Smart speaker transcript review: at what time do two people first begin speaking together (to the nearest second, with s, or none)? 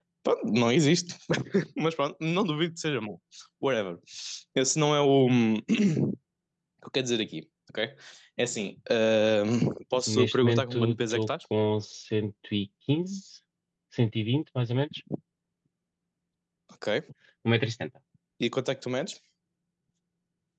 10 s